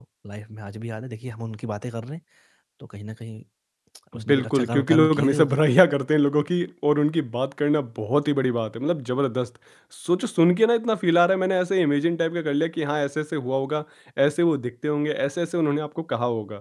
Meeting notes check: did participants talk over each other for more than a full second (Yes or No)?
Yes